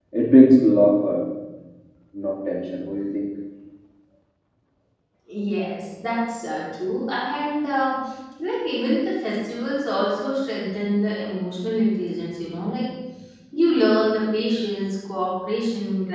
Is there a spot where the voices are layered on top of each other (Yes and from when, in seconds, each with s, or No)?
No